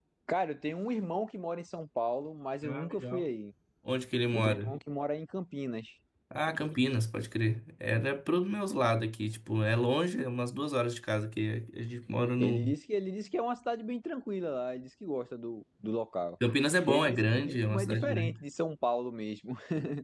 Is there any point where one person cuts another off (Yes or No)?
Yes